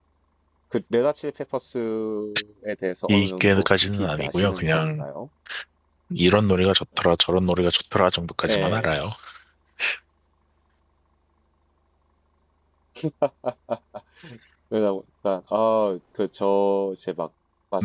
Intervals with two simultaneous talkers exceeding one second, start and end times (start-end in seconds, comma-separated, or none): 3.1-5.0